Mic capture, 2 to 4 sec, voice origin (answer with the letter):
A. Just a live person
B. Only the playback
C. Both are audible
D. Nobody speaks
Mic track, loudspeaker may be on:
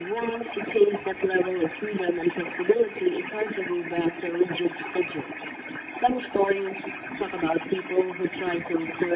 B